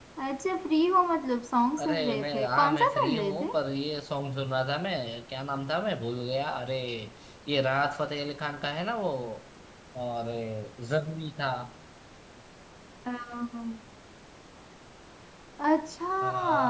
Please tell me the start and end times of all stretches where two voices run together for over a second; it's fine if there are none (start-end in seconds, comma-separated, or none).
1.8-3.5